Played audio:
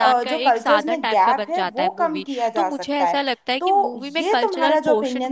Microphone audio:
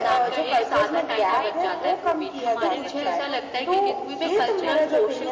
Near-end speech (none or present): present